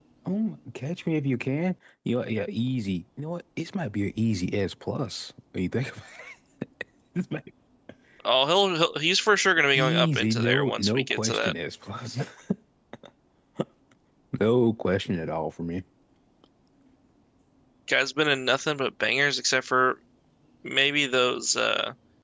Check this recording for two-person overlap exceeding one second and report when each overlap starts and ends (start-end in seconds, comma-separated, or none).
9.7-11.5